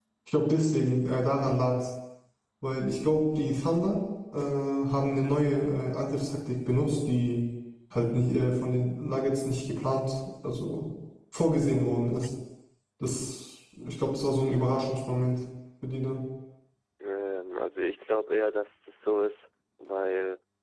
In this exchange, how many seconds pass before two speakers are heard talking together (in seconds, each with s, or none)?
none